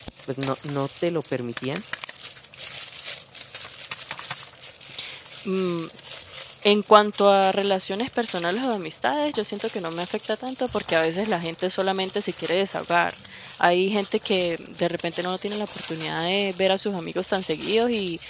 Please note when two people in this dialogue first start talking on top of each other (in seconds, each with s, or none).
none